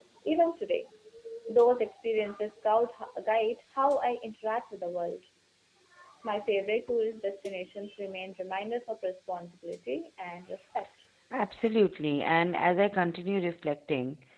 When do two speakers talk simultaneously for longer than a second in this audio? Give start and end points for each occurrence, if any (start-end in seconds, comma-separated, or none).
none